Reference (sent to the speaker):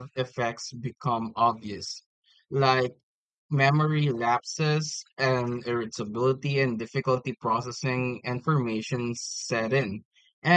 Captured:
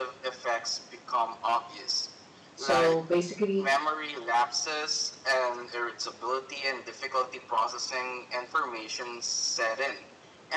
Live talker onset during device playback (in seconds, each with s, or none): 2.5 s